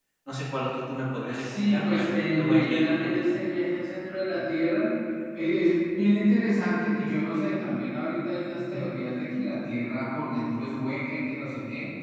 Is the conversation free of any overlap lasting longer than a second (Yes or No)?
No